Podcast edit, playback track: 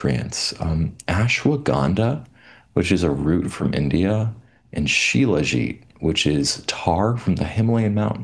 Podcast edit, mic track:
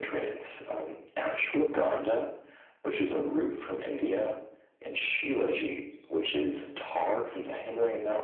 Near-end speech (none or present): none